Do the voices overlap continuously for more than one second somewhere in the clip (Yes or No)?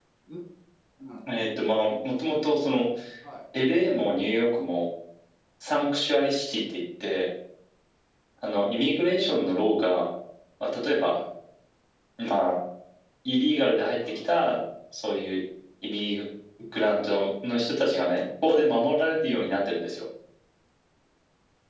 No